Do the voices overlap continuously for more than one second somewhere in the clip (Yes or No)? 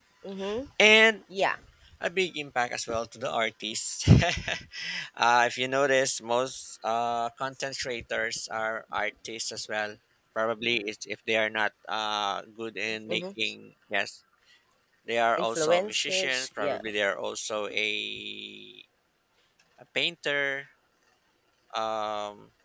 Yes